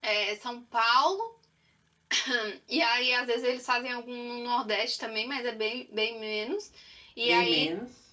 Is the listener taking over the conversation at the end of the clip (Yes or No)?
No